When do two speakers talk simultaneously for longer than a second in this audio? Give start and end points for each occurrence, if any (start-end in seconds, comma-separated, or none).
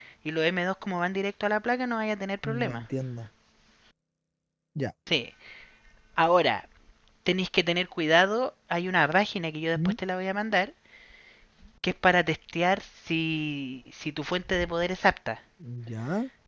none